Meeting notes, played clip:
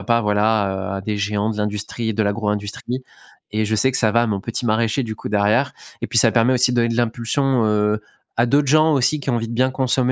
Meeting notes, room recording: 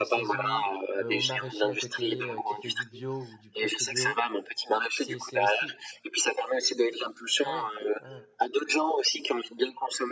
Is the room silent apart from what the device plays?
No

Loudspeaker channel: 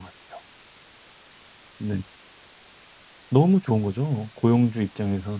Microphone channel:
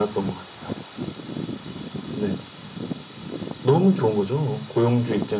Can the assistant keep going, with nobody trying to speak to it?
Yes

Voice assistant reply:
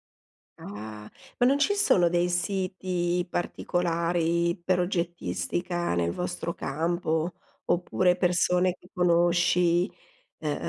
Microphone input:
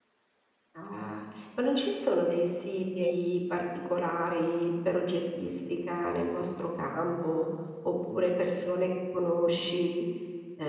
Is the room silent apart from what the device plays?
No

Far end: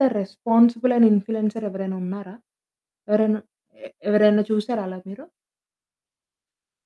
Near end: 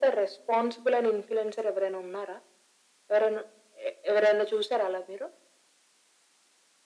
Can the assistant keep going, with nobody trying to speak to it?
Yes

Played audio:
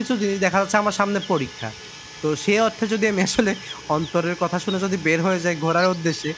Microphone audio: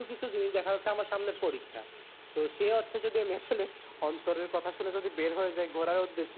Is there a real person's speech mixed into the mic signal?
No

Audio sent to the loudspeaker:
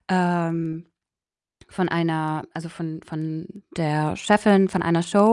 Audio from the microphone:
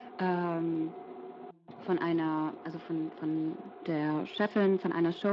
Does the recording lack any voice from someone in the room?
Yes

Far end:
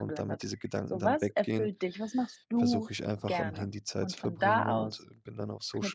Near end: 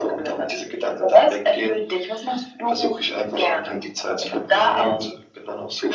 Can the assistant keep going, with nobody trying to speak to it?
Yes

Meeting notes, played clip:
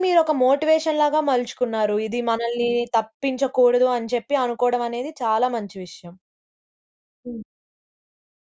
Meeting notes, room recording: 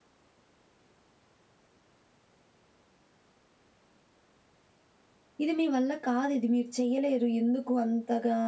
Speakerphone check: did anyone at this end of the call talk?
Yes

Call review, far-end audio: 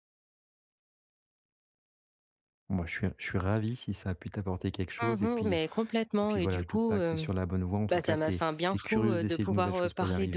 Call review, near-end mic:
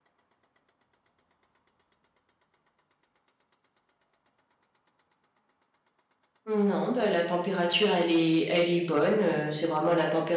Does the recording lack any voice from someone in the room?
No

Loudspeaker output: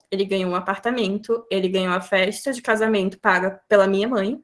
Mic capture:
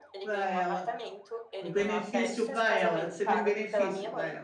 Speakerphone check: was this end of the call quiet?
No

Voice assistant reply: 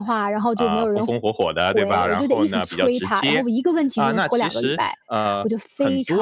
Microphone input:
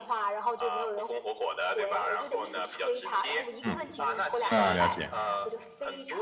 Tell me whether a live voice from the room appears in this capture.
Yes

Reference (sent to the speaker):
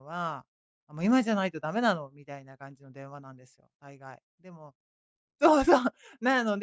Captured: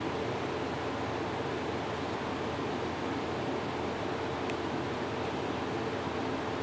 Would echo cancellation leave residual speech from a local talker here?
No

